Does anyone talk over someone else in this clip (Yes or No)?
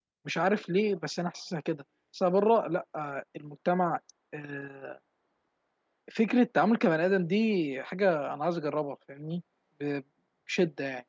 No